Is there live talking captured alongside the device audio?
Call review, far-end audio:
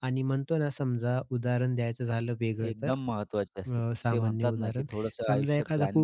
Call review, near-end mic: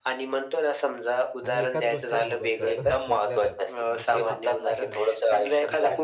Yes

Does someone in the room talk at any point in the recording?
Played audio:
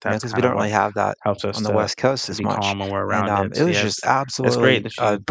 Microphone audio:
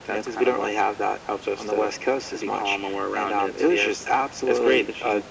No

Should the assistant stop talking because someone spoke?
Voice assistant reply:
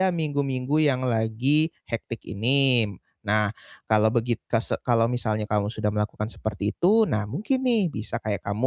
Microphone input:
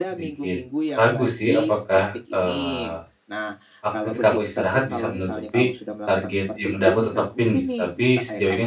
Yes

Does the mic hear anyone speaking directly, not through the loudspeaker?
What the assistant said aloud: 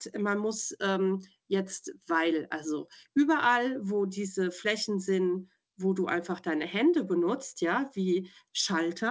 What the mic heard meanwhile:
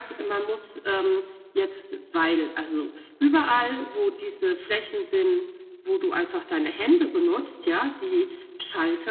No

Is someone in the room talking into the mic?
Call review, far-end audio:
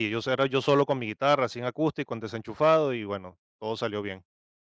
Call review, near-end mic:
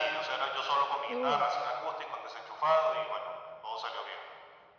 Yes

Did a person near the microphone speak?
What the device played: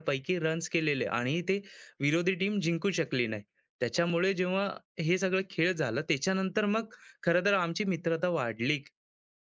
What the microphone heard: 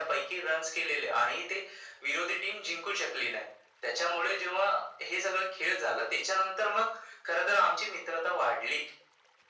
No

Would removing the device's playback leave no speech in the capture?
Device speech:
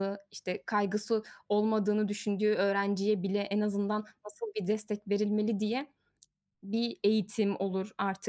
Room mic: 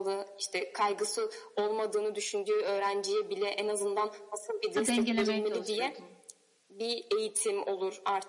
No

